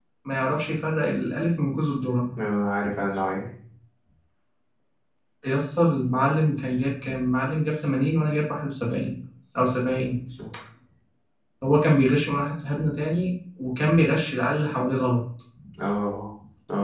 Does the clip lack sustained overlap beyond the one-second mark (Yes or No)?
Yes